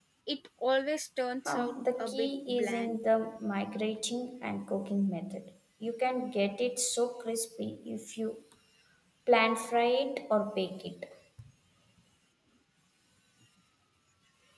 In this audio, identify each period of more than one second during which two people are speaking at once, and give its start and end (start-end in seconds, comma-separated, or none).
1.4-3.0